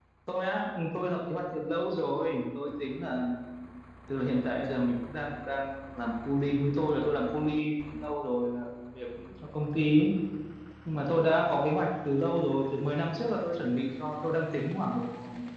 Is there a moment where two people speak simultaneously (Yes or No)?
No